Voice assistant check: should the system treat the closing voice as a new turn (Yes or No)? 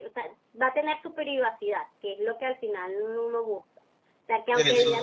No